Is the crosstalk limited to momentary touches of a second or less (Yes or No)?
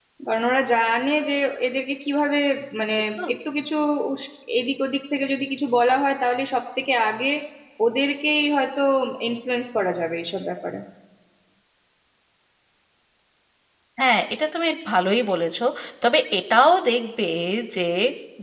Yes